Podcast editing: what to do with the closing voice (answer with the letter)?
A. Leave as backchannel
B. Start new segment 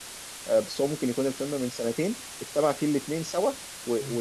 A